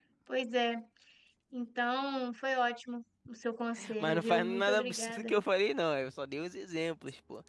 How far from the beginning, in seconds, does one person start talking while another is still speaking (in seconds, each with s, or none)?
3.8 s